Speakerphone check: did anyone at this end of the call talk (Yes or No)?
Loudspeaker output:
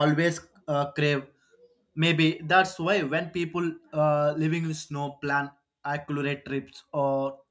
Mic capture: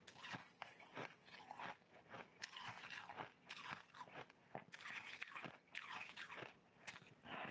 No